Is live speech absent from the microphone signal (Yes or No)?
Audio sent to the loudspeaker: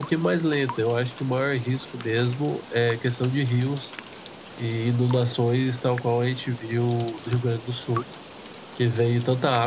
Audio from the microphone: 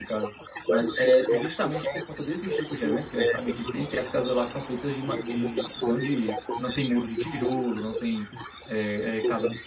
No